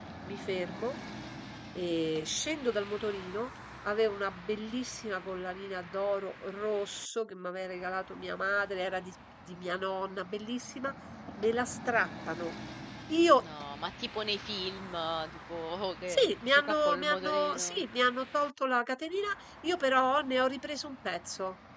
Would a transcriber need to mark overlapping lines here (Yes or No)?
Yes